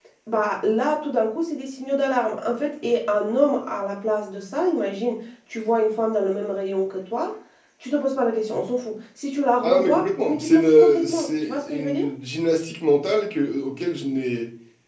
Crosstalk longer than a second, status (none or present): present